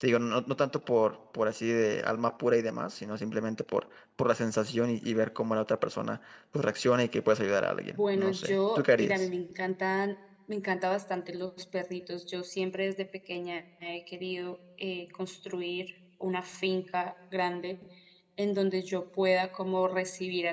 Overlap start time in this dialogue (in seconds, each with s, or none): 8.0 s